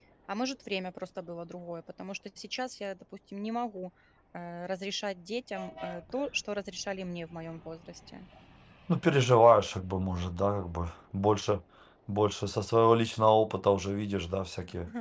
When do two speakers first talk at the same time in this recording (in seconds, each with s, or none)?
none